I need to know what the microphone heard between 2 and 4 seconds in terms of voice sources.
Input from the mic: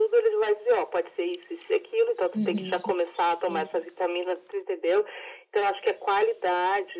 both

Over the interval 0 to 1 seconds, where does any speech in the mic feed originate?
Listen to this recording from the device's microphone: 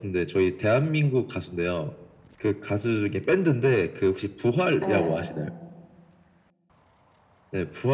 echo only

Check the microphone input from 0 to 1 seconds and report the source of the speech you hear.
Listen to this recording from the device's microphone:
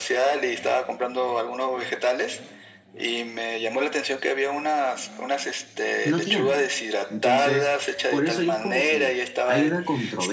echo only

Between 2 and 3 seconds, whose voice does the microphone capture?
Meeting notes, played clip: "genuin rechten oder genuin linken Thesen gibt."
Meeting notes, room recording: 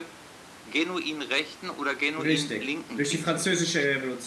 both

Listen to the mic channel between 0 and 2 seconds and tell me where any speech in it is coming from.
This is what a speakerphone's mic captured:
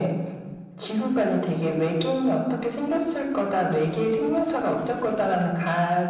echo only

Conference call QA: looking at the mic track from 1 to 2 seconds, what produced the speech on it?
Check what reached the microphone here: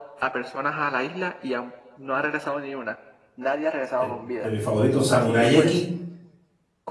echo only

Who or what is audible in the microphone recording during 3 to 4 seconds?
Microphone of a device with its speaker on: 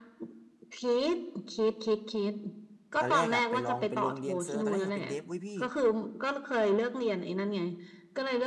both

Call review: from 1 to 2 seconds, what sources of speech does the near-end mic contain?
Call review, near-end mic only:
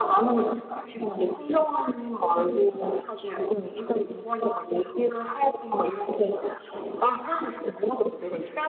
echo only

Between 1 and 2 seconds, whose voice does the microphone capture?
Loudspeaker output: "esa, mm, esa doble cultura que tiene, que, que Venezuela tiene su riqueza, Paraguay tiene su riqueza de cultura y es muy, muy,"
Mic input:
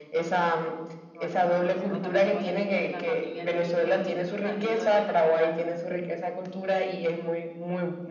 both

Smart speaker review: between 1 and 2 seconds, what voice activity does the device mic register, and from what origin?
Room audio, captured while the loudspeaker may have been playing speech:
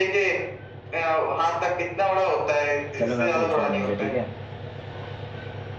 echo only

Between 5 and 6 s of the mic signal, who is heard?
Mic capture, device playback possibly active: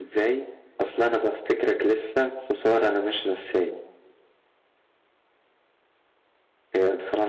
neither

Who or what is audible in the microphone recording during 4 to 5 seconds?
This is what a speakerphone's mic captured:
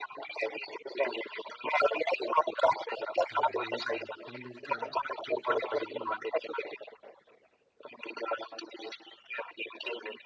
both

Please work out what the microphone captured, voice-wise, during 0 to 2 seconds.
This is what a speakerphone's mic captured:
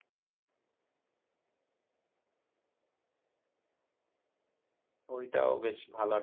neither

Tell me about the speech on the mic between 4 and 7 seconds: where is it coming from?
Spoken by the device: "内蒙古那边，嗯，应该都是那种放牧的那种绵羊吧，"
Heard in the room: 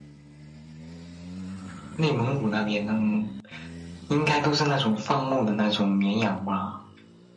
echo only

